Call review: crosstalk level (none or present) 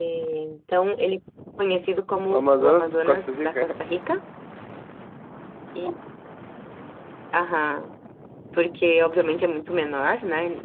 present